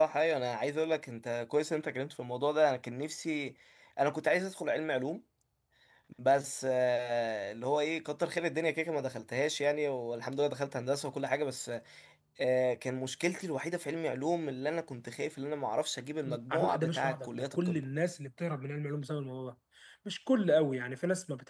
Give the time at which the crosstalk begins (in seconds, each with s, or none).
16.2 s